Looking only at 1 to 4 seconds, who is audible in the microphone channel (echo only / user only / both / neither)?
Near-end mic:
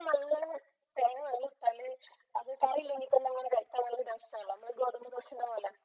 echo only